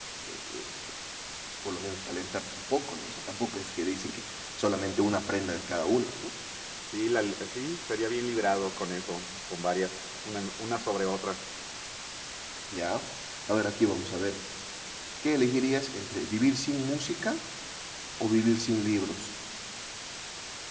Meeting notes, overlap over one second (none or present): none